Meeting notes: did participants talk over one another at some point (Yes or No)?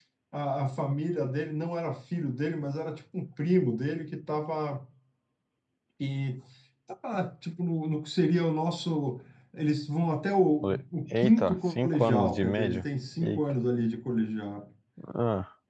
Yes